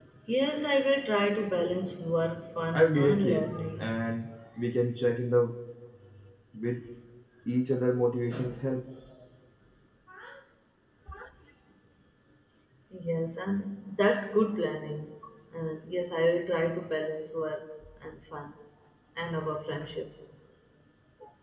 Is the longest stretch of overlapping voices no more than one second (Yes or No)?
No